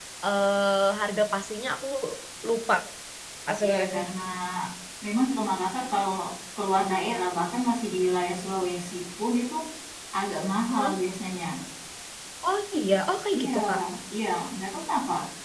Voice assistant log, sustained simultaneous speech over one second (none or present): none